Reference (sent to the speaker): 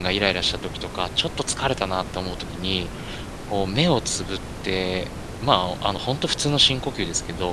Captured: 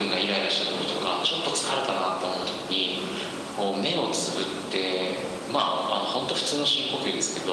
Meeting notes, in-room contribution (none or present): none